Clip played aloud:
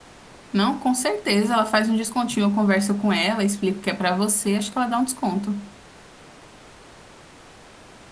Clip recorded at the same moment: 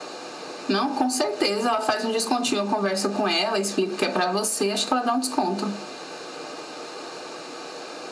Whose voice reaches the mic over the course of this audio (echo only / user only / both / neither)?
echo only